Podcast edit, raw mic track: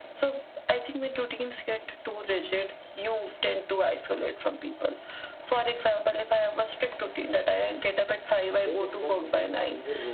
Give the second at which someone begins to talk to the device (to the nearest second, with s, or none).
9 s